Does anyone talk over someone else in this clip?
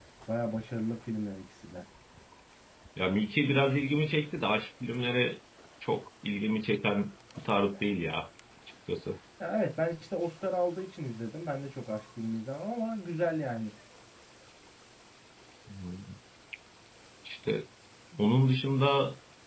No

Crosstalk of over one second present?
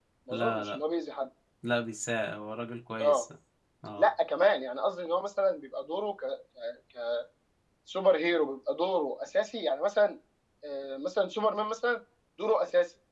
No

